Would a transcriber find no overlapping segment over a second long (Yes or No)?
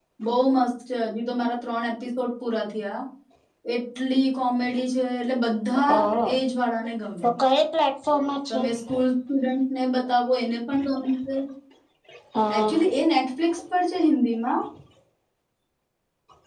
Yes